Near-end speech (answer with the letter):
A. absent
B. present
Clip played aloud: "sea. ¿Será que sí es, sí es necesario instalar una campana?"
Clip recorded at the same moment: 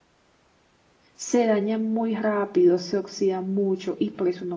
B